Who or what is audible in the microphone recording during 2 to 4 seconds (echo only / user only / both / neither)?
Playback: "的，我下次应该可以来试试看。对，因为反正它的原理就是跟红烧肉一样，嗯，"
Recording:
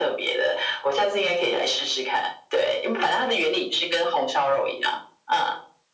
echo only